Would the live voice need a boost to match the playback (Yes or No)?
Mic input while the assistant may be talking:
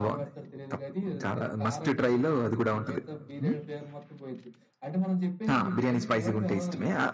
No